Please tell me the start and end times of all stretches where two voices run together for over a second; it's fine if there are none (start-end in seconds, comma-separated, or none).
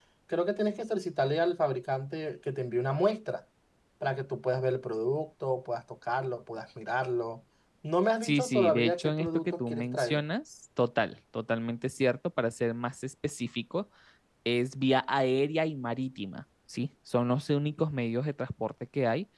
8.2-10.2